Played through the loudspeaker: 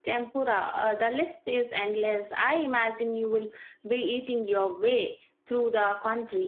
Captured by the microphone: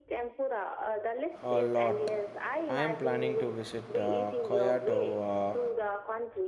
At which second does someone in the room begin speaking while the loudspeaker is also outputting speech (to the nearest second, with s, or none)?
1 s